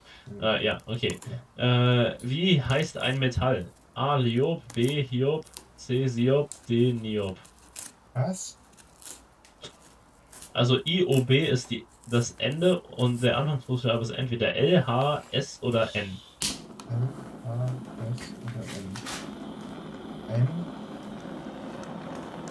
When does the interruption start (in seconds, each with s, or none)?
none